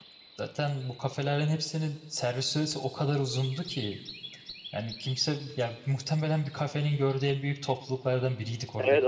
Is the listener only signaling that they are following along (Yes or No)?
No